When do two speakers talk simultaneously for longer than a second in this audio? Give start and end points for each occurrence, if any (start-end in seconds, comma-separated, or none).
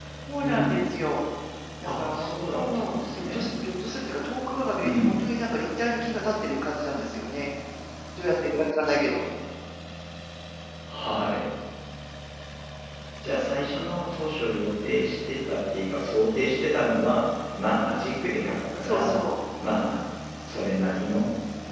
1.9-3.5